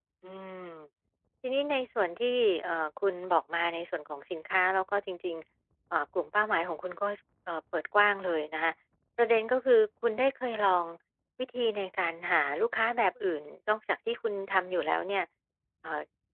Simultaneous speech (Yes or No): No